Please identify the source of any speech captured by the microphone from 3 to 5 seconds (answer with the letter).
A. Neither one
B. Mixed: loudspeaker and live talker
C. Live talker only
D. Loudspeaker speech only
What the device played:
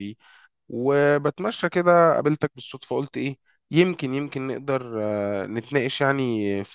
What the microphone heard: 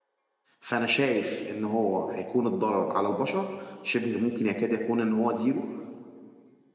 C